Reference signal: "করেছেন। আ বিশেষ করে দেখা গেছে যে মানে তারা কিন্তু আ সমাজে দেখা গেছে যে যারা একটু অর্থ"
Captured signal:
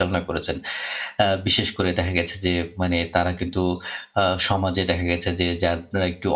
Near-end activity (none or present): none